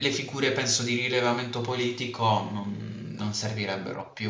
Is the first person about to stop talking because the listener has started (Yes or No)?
Yes